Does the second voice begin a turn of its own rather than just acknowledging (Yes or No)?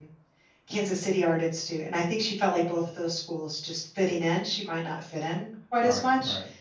Yes